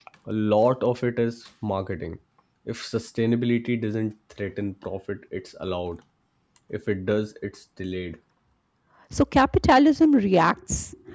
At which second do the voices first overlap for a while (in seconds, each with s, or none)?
none